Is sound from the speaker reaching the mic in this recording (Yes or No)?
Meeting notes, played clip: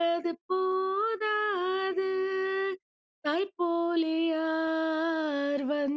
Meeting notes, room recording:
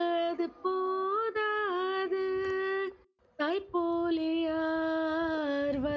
Yes